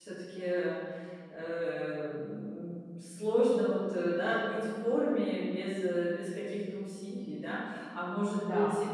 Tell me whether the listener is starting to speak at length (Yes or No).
No